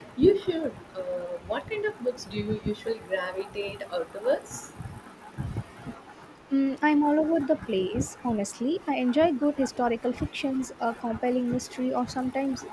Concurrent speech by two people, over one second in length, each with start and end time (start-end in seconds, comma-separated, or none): none